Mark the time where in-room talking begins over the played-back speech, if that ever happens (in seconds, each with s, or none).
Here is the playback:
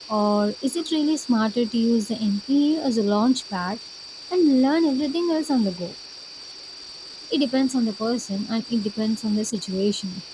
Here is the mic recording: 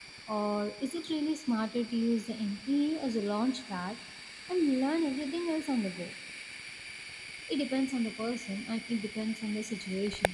none